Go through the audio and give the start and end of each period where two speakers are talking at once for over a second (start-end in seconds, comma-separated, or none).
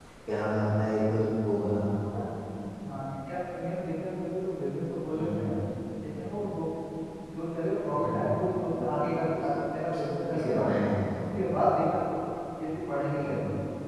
none